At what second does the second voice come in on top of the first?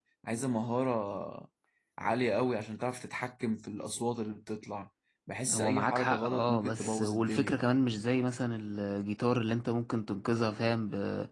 5.5 s

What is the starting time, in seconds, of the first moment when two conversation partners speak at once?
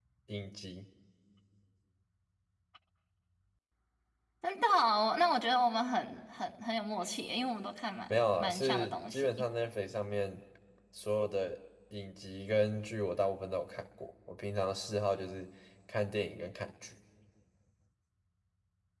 8.1 s

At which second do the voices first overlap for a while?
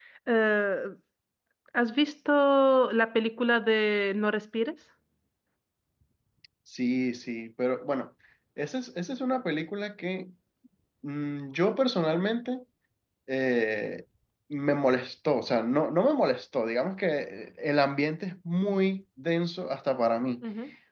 none

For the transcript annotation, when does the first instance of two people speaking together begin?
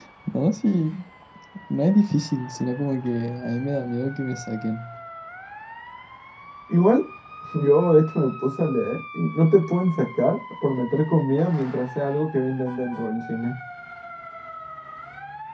none

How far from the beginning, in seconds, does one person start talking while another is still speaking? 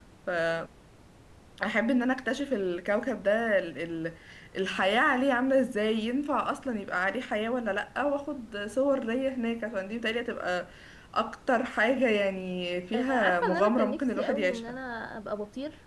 12.9 s

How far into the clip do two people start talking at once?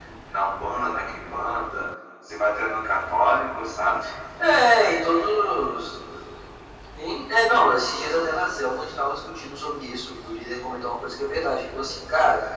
none

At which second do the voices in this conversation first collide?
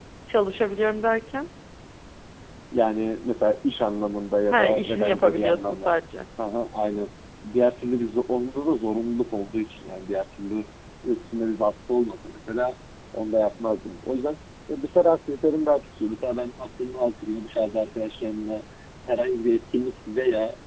4.5 s

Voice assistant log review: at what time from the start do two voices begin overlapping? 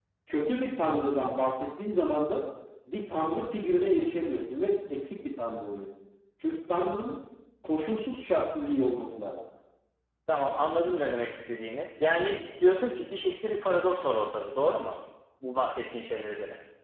none

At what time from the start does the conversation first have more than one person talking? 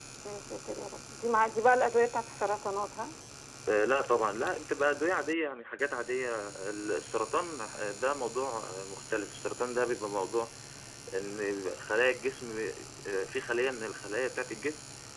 none

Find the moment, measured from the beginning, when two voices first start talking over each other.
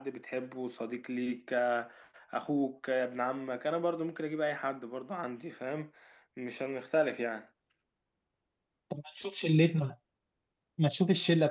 none

